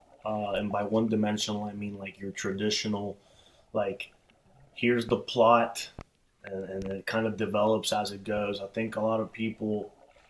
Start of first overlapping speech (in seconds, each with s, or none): none